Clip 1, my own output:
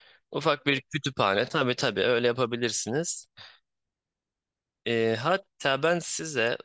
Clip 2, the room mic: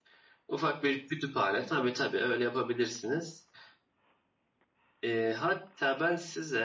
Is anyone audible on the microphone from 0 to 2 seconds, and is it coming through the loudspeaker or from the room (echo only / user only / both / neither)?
echo only